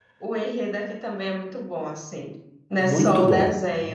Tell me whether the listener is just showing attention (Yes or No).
No